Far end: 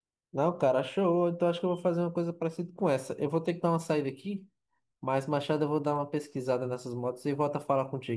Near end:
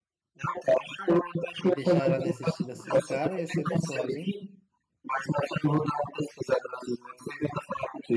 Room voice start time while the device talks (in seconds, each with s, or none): 1.6 s